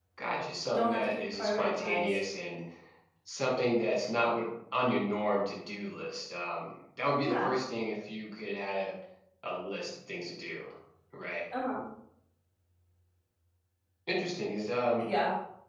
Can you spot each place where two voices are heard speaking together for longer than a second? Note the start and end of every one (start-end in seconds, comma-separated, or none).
0.7-2.2